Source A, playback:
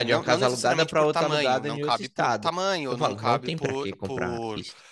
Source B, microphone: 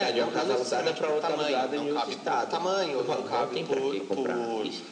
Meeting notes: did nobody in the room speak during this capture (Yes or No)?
Yes